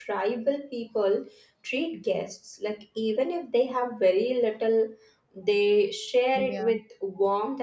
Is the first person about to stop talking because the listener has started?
No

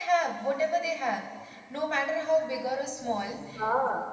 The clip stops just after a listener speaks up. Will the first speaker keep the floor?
Yes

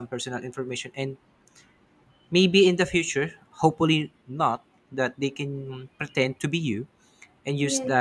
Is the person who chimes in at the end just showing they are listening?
Yes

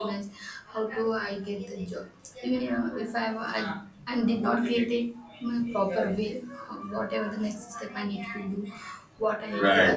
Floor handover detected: No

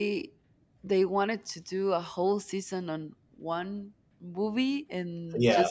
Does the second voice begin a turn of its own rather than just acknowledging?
No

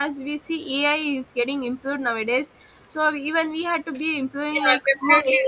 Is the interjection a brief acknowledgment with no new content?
No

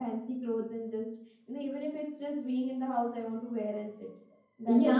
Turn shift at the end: Yes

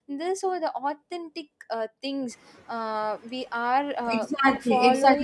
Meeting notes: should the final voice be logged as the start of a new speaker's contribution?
Yes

